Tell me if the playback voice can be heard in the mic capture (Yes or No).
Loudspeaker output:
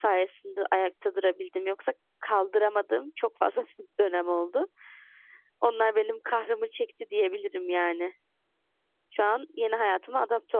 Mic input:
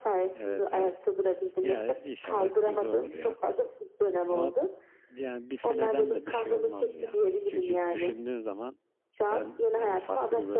Yes